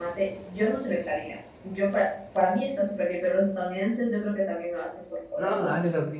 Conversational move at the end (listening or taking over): taking over